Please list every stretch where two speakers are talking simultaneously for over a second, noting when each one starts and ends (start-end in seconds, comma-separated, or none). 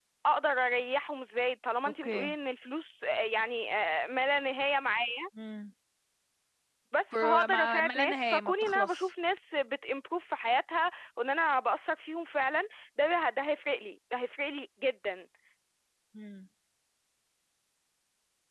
7.1-9.1